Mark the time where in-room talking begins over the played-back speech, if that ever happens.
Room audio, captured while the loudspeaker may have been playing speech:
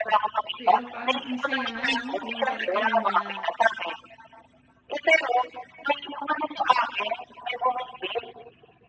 0.6 s

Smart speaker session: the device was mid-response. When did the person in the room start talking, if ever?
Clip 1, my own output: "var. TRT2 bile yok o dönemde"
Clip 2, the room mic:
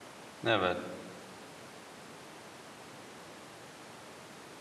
0.4 s

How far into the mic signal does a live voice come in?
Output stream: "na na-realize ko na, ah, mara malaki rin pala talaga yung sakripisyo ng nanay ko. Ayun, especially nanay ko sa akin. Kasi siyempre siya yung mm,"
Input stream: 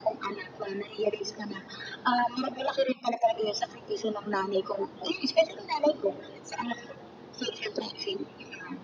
none

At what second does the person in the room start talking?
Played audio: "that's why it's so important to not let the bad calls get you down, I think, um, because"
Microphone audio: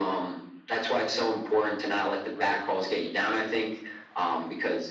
2.3 s

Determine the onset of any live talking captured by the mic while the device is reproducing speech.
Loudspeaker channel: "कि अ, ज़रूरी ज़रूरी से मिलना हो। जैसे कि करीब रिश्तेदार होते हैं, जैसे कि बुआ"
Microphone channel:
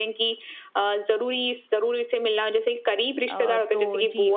3.3 s

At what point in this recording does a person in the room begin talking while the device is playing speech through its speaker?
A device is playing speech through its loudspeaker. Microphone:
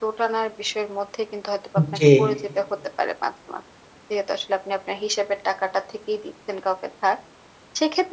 1.8 s

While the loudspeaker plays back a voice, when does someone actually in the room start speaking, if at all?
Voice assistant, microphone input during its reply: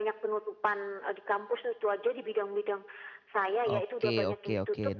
3.6 s

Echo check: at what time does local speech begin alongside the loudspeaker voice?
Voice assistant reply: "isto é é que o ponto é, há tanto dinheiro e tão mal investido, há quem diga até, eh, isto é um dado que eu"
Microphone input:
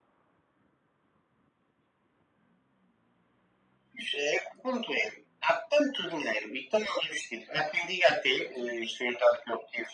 none

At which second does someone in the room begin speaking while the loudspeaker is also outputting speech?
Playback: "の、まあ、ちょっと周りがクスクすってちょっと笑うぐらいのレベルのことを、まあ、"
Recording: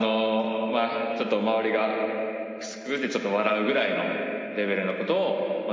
none

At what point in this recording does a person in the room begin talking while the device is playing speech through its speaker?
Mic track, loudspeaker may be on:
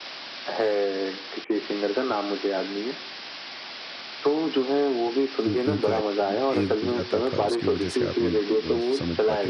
5.5 s

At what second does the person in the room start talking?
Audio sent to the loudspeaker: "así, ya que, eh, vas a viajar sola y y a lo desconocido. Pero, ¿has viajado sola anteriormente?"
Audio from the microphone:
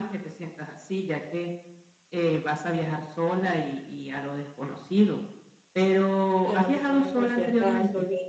6.4 s

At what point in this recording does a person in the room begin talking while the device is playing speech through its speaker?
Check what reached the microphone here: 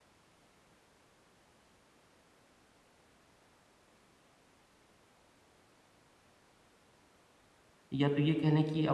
7.9 s

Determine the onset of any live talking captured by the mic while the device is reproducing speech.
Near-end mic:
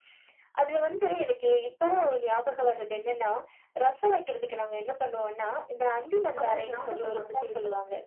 6.4 s

